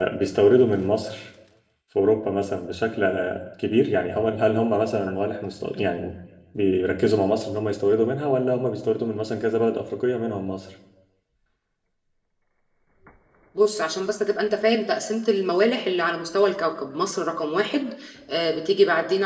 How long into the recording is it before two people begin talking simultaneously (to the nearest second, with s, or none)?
none